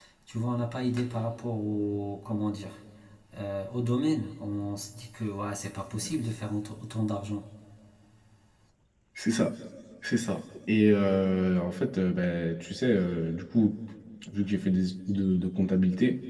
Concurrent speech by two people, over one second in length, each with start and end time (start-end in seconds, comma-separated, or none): none